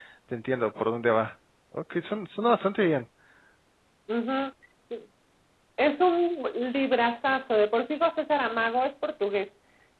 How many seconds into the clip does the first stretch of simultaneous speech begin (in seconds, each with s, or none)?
none